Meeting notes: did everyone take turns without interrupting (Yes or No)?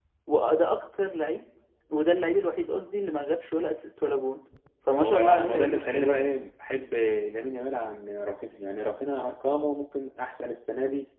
No